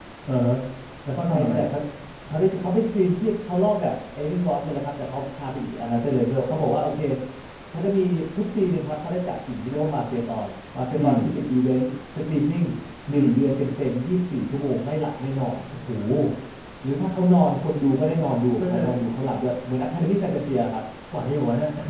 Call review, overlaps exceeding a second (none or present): none